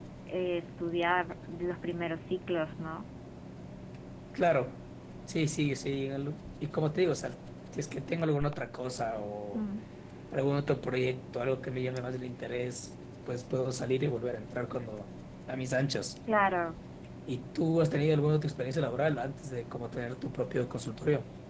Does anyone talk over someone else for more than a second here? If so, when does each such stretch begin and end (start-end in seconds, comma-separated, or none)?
none